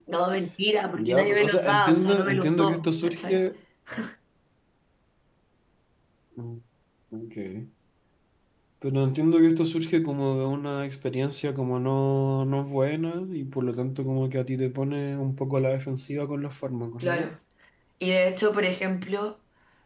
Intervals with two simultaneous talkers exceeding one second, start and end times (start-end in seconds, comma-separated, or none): 0.9-3.4